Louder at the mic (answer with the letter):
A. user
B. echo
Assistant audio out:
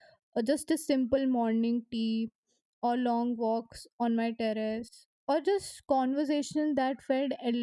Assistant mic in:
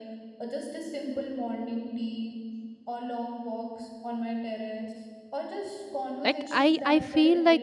A